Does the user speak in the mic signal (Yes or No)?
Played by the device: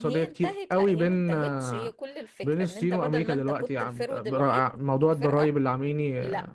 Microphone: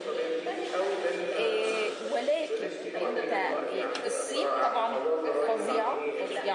Yes